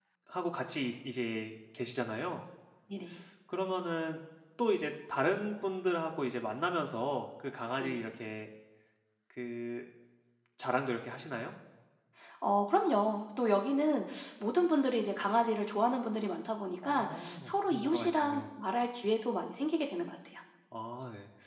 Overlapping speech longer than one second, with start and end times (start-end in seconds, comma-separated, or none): 16.8-18.4